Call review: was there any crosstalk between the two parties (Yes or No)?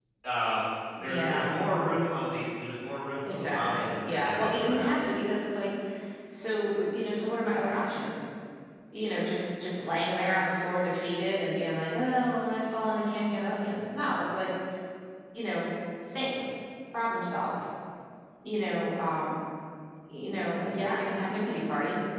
Yes